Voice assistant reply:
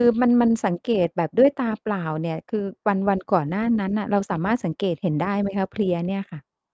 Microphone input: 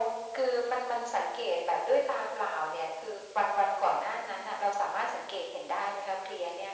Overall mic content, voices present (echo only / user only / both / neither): echo only